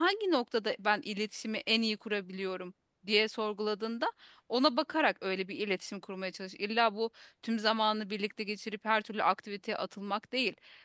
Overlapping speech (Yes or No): No